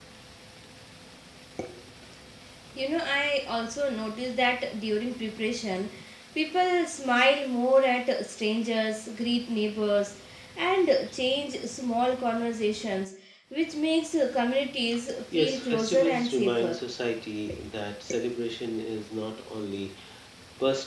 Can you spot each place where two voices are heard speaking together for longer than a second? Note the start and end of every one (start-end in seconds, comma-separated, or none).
15.3-16.8